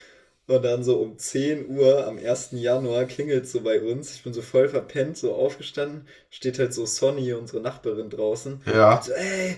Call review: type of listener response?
listening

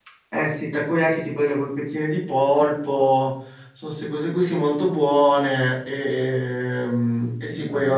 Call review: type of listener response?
listening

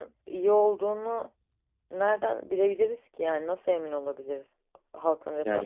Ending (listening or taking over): taking over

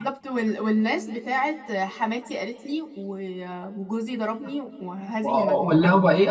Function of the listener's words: taking over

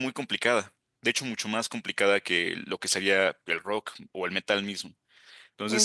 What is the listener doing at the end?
listening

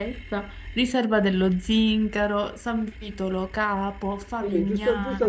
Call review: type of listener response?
taking over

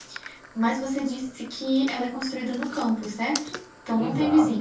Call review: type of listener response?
taking over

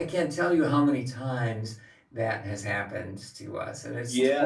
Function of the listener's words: taking over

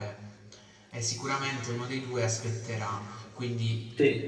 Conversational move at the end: listening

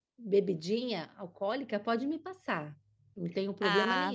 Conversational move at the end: taking over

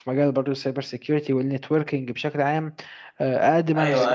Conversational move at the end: taking over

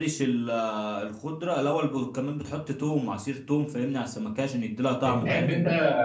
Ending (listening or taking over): taking over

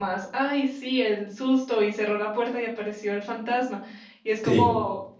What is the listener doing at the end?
listening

